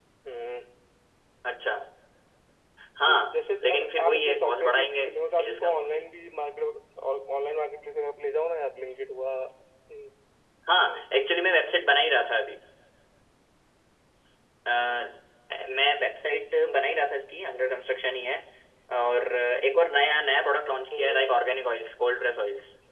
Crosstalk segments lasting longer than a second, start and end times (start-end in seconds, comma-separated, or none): 3.1-6.0